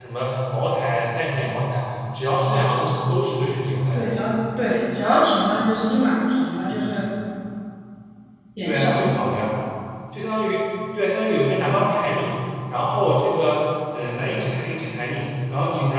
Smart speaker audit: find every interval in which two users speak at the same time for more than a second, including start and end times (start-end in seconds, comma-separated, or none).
none